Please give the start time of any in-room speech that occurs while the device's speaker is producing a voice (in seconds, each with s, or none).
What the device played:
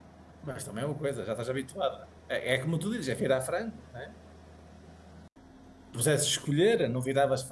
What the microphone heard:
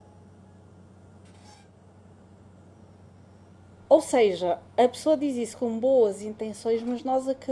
3.9 s